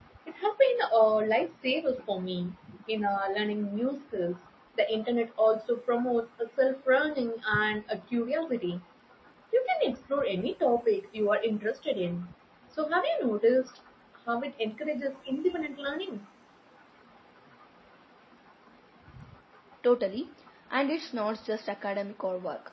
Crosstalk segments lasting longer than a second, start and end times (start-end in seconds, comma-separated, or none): none